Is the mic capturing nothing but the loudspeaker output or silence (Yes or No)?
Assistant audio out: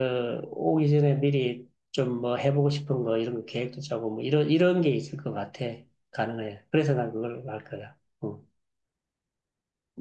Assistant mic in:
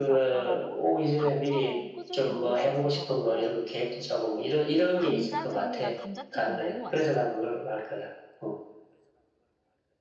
No